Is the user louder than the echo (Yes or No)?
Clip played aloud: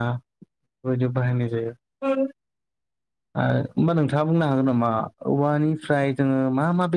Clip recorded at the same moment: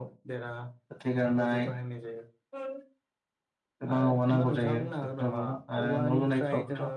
Yes